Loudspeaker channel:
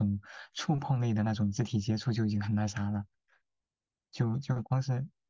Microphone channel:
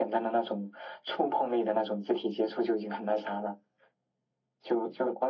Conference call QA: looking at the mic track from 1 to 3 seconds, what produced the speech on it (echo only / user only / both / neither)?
echo only